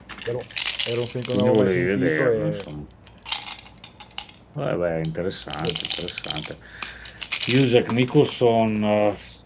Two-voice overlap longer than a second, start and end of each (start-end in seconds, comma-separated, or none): 1.3-2.6